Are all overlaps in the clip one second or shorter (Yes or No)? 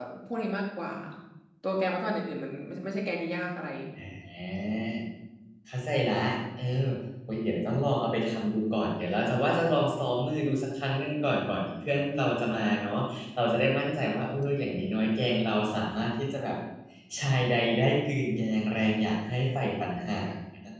Yes